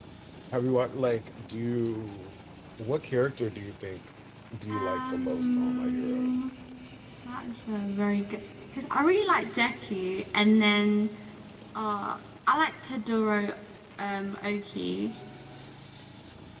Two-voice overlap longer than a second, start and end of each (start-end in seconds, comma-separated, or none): 4.7-6.4